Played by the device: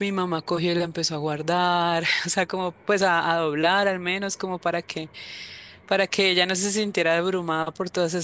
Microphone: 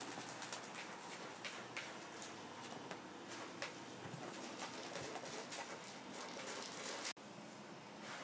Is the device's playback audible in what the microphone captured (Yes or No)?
No